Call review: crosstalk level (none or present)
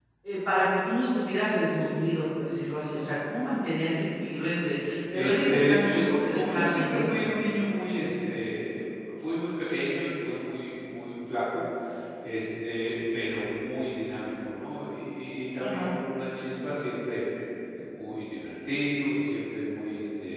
present